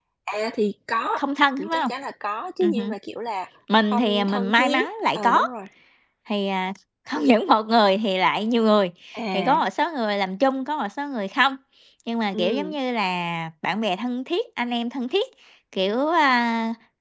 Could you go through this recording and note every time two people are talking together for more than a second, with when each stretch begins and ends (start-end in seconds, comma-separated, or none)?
3.9-5.4